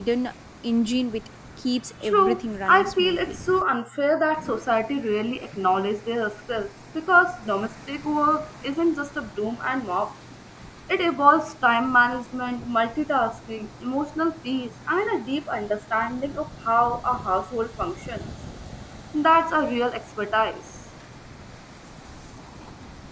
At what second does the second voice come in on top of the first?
2.0 s

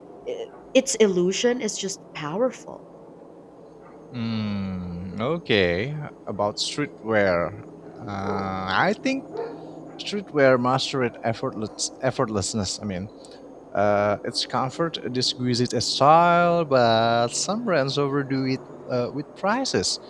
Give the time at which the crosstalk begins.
none

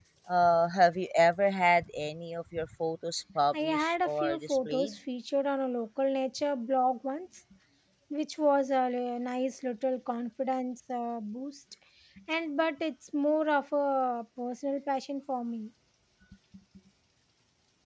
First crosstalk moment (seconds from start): 3.5 s

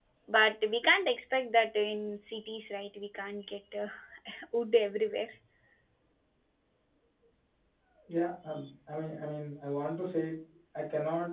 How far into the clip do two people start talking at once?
none

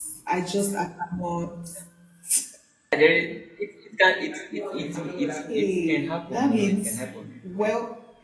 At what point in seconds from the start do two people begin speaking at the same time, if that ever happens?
5.7 s

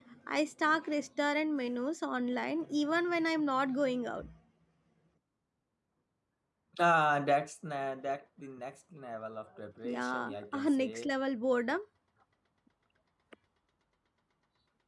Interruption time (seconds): 9.8 s

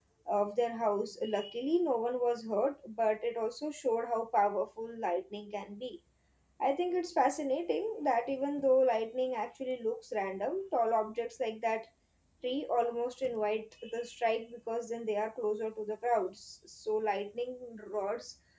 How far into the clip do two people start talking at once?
none

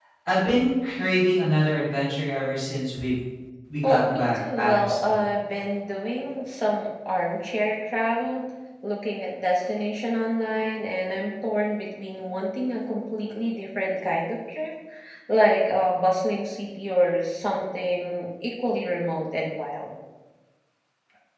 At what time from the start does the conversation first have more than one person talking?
3.8 s

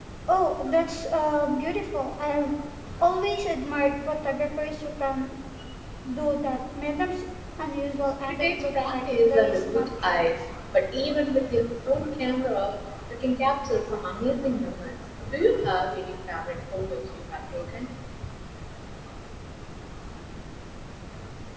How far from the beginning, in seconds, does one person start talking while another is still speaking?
8.2 s

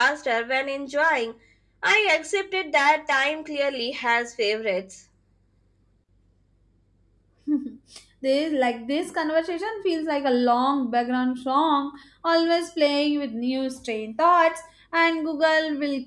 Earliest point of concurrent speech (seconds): none

